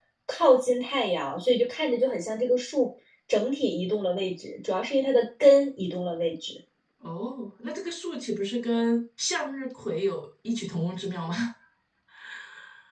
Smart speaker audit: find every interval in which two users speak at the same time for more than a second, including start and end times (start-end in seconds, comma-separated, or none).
none